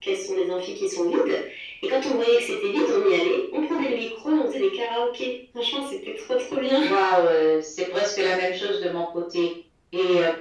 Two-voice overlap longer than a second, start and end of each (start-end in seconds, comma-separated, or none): none